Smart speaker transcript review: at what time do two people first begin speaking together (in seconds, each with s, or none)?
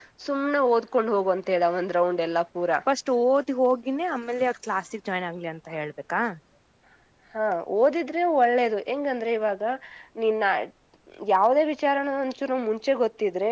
none